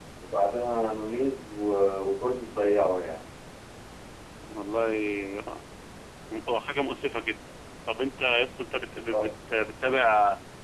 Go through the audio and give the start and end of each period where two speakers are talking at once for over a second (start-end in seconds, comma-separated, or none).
none